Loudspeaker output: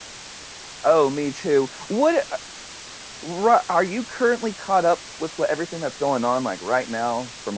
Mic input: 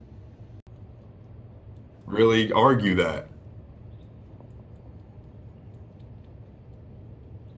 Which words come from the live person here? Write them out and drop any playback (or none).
really argue that?